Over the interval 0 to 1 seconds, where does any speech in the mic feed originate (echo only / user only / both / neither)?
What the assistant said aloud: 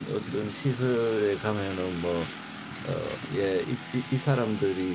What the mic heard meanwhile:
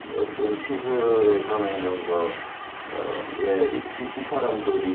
echo only